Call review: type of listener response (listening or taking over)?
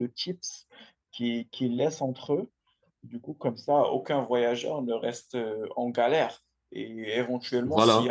listening